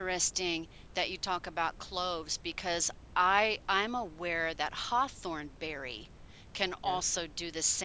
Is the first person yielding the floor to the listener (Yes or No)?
No